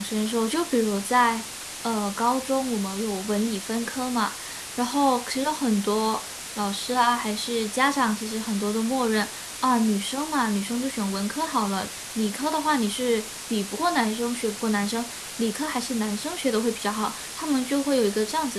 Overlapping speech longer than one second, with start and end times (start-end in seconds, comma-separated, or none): none